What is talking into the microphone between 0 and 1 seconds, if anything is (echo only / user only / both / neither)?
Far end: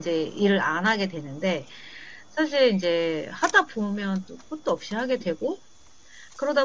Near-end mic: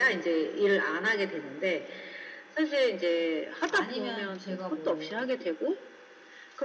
echo only